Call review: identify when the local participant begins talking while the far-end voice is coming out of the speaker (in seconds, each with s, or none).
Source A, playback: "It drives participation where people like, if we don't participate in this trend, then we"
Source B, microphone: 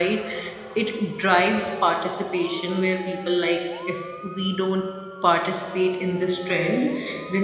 none